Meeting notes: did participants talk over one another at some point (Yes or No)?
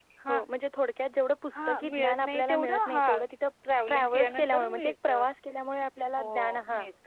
Yes